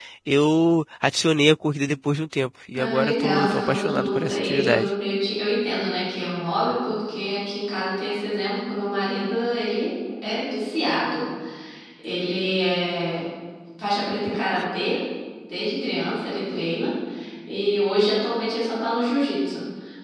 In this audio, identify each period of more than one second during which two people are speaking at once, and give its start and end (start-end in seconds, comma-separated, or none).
2.7-4.9